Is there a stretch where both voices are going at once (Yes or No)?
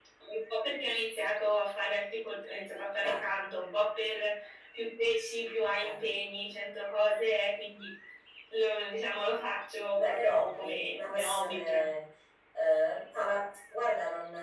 Yes